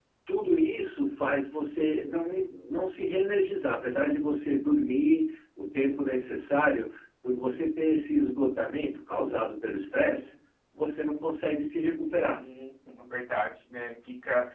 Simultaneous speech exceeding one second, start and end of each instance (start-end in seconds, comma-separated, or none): none